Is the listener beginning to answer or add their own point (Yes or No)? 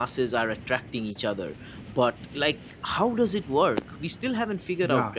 Yes